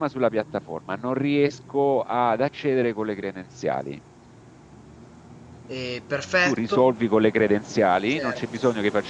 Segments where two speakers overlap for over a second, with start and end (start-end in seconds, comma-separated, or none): none